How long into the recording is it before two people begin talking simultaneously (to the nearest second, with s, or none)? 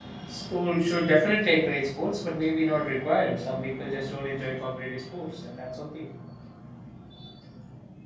none